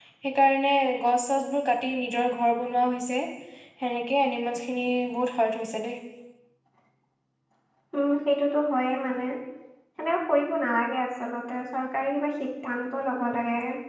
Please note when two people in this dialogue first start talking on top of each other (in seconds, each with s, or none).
none